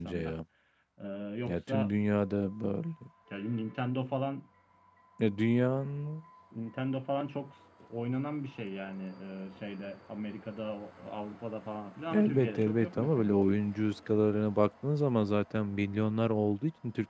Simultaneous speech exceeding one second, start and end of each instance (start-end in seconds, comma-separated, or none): 12.1-13.3